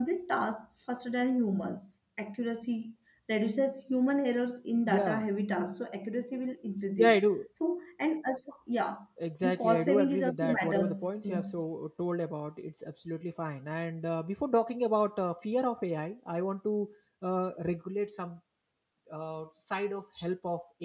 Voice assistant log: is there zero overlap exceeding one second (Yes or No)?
No